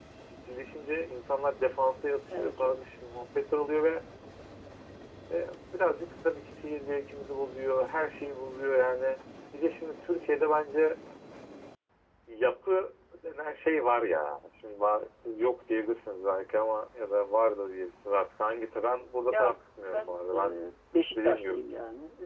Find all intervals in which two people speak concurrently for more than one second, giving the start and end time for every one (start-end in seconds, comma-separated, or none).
19.3-20.6